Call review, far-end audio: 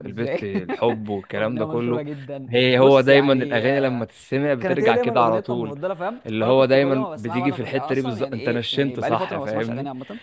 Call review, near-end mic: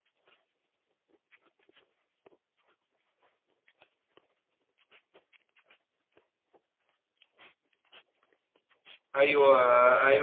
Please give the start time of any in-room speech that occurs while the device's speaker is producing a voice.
9 s

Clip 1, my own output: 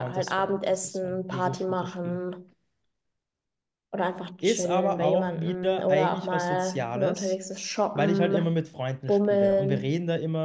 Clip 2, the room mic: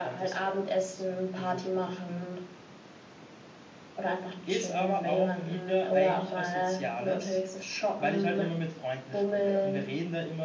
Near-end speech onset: none

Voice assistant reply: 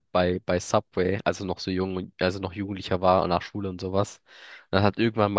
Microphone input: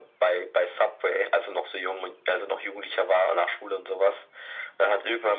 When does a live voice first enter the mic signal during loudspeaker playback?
none

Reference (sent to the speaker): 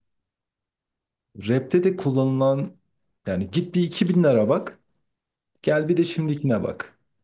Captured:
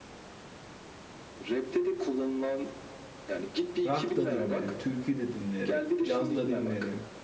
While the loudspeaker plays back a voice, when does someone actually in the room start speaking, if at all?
4 s

